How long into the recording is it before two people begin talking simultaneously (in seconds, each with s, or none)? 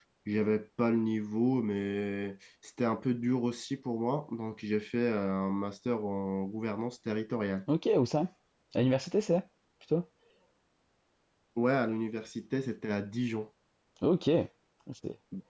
none